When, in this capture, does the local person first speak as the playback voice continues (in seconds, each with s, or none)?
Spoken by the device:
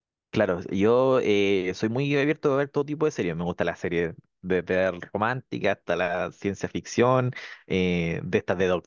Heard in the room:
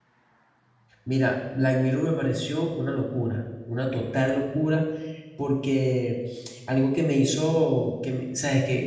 1.0 s